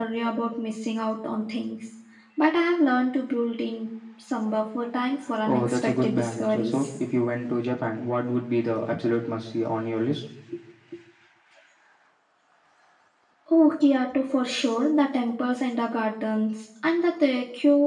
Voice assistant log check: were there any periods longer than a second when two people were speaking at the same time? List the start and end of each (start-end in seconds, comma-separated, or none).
5.5-6.9